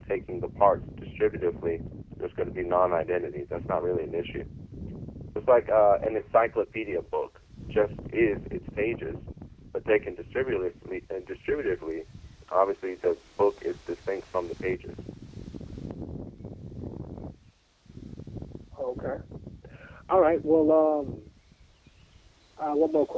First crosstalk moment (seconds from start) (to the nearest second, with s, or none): none